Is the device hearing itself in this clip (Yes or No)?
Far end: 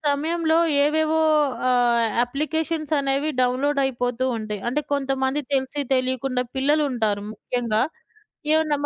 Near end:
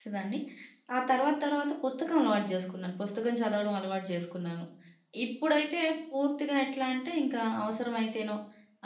No